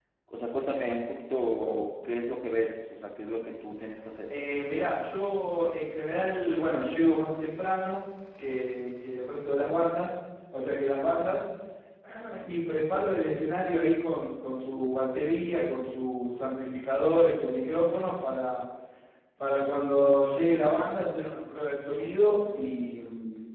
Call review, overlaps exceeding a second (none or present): none